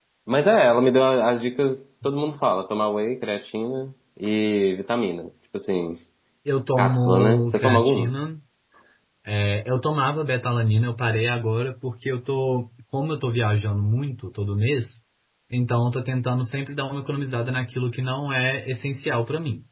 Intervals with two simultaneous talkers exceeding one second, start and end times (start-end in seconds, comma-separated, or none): 6.8-8.1